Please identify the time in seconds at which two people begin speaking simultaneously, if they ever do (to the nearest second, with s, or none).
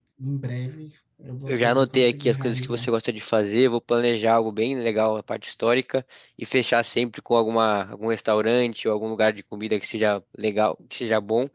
1 s